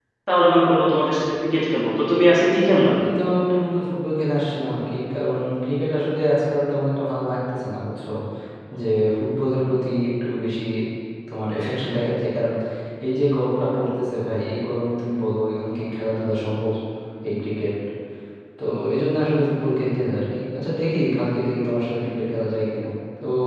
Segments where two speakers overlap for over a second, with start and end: none

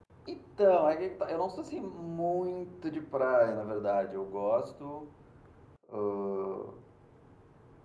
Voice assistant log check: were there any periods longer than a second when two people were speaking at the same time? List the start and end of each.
none

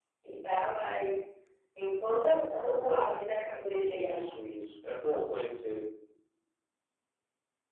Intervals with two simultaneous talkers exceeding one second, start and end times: none

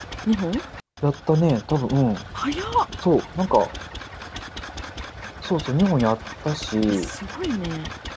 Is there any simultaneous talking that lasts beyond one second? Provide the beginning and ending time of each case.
none

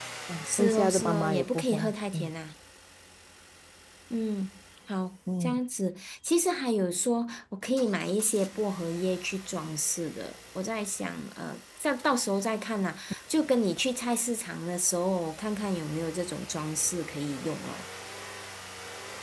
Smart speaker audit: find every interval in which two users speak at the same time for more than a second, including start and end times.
0.5-2.3

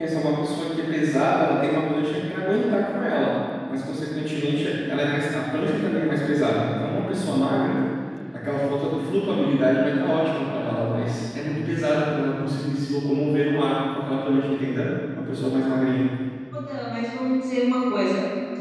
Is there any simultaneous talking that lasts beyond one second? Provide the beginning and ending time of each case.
none

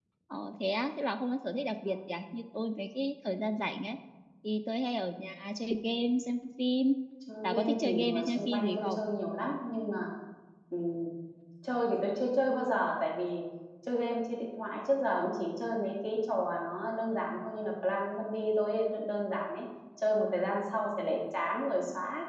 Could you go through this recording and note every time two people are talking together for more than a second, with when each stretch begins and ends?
7.4-9.0

